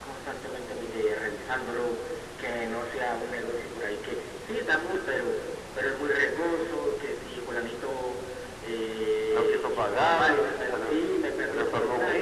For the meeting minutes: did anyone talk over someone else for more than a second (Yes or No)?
Yes